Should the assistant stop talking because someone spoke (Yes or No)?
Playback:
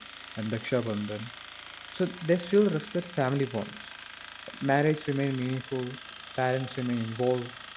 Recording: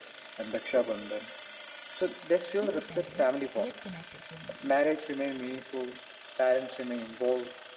Yes